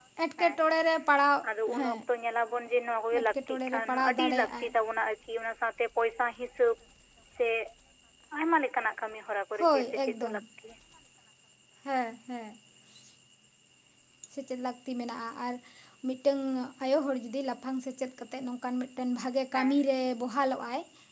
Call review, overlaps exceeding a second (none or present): present